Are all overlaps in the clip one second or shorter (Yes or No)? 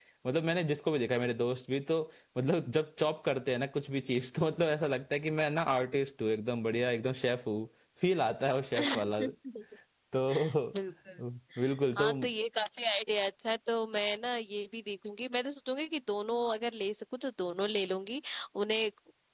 Yes